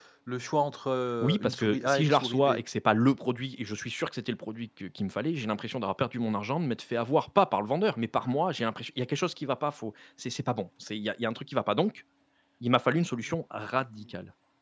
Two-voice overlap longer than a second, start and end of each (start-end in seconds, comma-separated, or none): 1.2-2.5